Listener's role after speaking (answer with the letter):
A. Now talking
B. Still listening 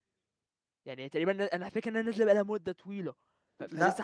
A